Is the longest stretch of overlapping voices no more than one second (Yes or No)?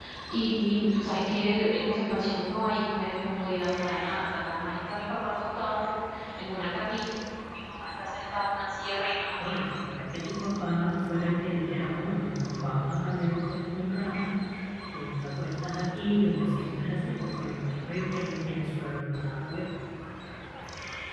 Yes